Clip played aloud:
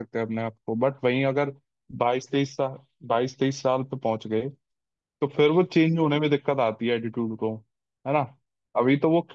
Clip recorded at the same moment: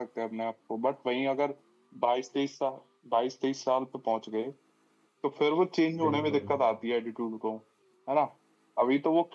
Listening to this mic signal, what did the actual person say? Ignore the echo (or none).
बिल्कुल